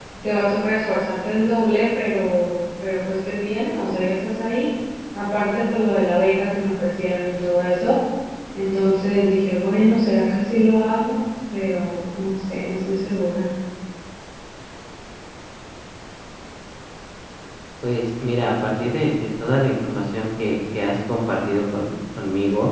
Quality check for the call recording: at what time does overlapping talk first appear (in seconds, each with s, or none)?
none